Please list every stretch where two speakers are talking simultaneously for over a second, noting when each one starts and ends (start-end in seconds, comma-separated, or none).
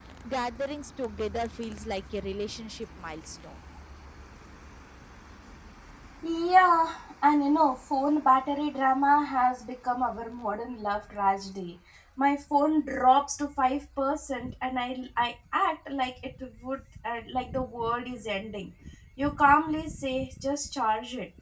none